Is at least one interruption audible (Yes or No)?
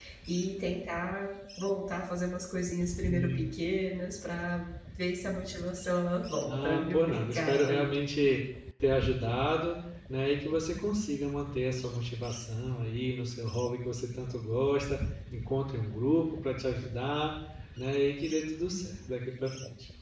Yes